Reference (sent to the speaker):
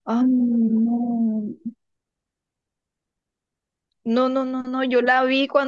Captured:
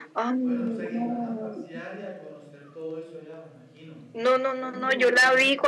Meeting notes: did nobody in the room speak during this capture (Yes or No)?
No